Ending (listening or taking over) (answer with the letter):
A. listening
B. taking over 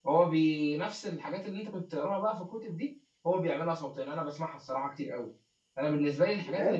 A